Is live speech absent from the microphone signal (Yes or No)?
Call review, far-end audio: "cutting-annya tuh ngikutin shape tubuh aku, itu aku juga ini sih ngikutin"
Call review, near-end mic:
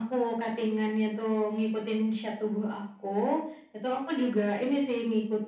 Yes